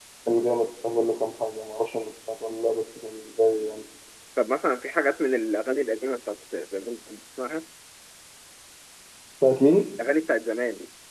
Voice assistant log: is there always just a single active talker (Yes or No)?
Yes